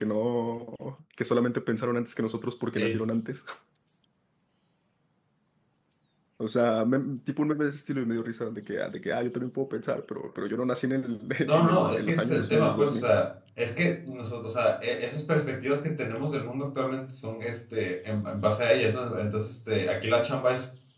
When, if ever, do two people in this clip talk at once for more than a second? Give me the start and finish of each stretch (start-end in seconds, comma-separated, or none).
11.4-13.1